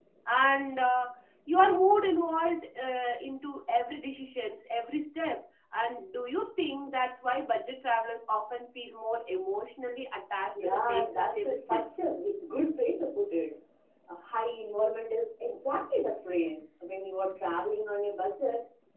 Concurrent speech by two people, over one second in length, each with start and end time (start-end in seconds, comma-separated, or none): 10.6-11.8